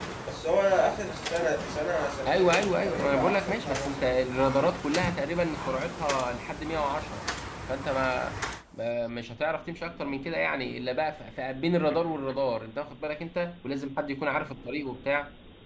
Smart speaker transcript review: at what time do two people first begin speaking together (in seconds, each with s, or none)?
2.2 s